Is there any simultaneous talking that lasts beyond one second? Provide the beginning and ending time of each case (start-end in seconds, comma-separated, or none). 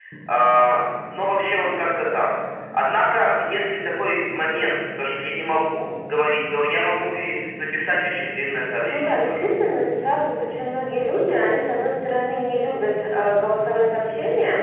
none